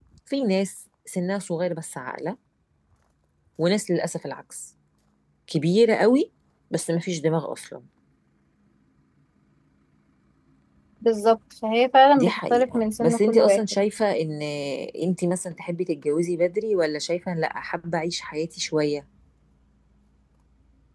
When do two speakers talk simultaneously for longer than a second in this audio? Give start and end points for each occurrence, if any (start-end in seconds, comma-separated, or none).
12.2-13.8